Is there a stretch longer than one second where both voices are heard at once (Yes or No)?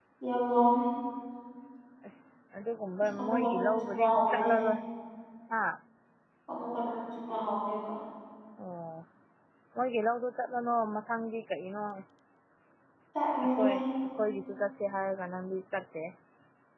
Yes